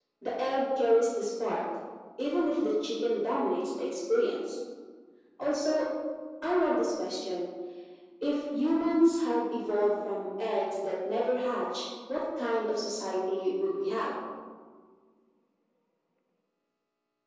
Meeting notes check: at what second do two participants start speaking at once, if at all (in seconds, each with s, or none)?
none